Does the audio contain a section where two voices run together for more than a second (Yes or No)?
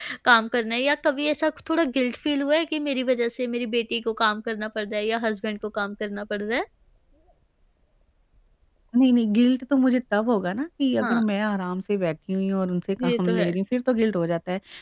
No